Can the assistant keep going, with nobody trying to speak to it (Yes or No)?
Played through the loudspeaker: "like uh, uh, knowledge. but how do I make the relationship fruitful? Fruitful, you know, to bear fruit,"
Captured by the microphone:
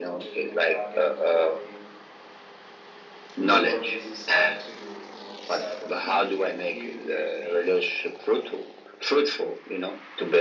No